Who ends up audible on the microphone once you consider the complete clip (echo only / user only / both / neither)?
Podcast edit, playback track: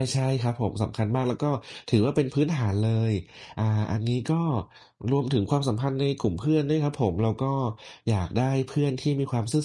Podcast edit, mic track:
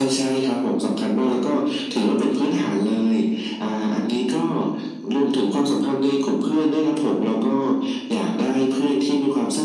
echo only